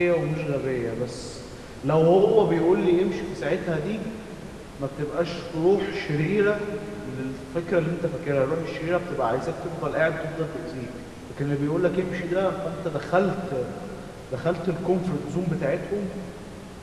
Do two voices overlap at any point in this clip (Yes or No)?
No